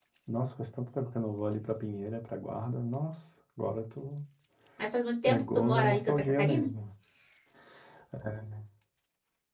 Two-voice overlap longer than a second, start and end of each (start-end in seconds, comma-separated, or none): 5.3-6.7